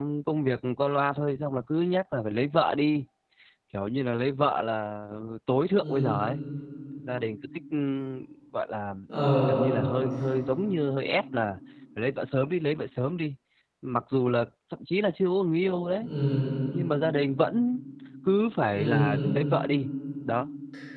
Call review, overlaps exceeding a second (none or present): none